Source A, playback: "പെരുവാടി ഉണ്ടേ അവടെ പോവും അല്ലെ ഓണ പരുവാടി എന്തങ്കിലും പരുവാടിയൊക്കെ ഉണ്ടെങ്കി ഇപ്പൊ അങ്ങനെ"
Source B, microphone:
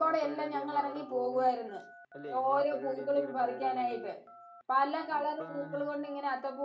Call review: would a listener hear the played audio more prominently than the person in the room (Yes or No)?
No